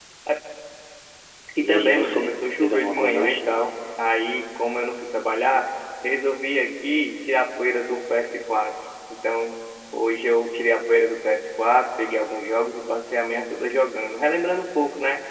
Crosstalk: present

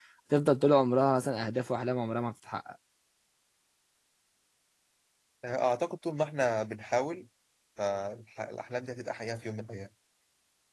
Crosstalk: none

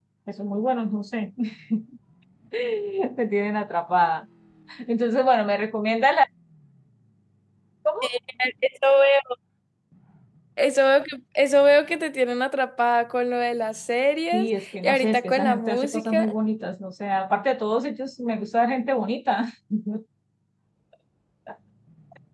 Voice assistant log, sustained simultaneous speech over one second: present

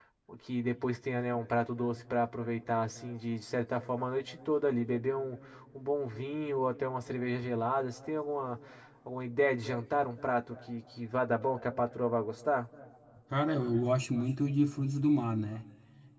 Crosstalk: none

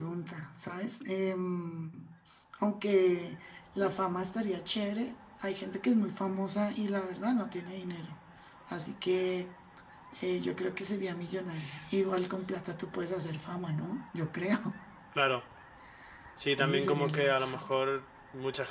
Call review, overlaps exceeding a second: present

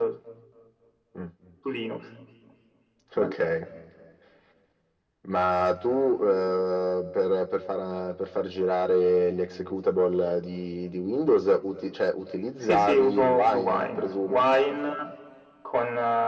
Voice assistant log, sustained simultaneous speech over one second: present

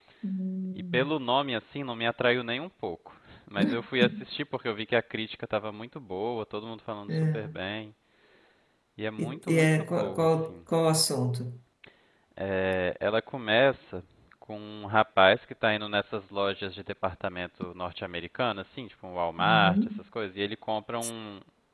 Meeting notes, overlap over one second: present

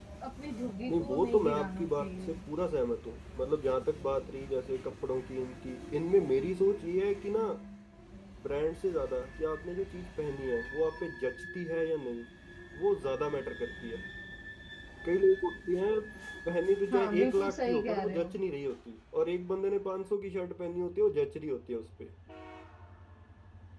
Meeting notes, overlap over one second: present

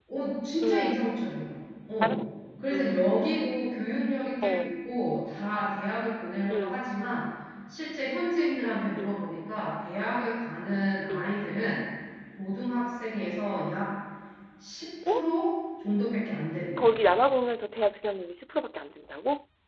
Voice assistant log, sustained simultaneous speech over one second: none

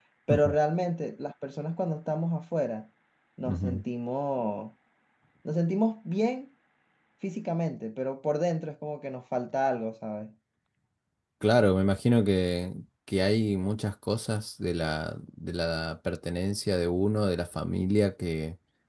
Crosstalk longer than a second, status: none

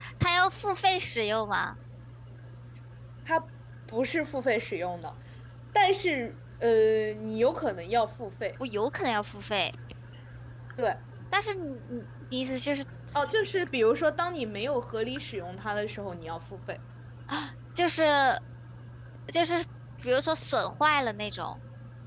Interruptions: none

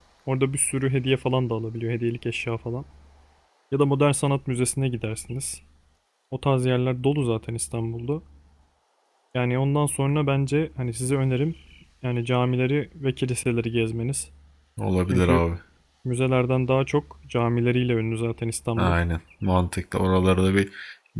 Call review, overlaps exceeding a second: none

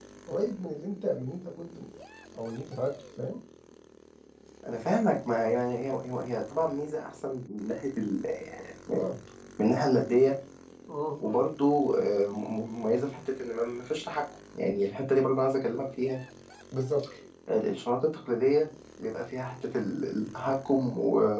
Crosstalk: none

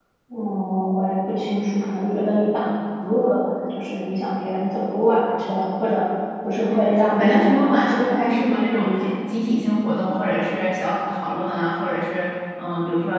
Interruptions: present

